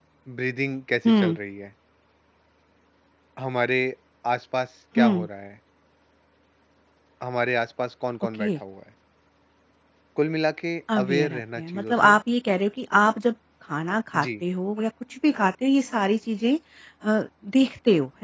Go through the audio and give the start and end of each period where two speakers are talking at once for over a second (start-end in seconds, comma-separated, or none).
10.9-12.2